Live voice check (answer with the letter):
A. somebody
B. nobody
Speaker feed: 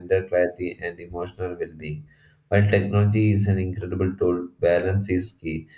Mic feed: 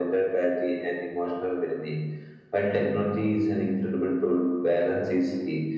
B